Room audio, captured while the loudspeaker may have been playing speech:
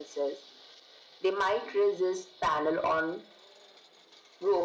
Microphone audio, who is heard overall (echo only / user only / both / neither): echo only